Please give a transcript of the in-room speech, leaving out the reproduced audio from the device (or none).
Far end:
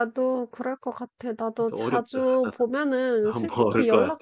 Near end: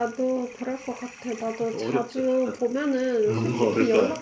음,